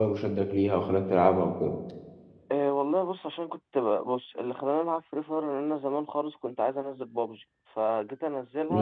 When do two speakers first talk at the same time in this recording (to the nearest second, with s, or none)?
none